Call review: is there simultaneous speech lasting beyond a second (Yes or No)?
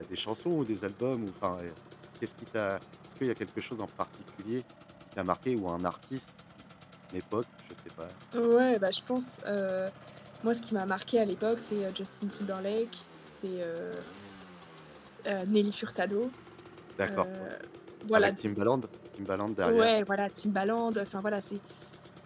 No